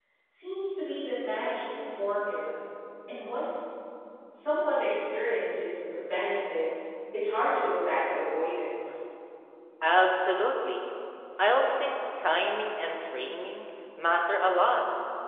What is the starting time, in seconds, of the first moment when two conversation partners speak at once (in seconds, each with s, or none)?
none